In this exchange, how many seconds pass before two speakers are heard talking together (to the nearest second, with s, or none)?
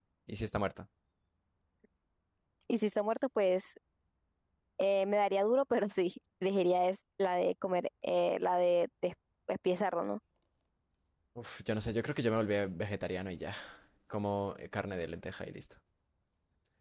none